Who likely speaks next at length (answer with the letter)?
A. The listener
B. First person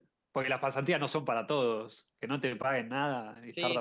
A